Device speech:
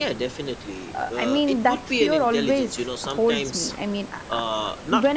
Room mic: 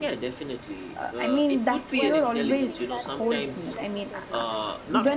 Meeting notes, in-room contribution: present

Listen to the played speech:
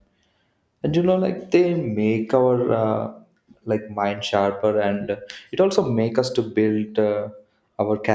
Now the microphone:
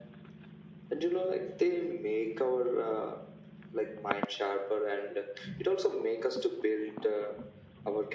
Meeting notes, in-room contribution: none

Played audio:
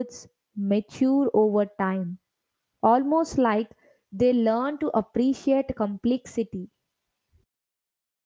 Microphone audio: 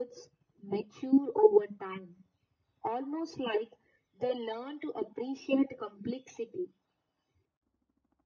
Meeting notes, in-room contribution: none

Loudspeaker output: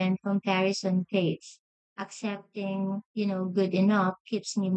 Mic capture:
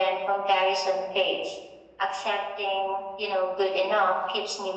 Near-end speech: none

